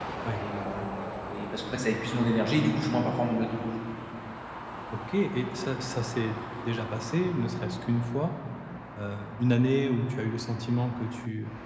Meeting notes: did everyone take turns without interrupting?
Yes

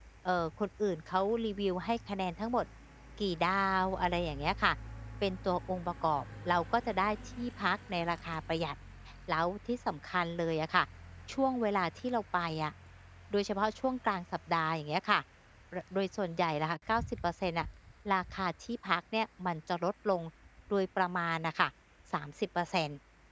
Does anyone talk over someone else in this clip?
No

